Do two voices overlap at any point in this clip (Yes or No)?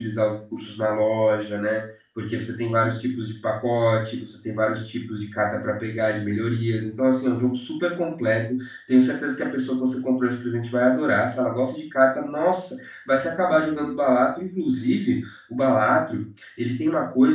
No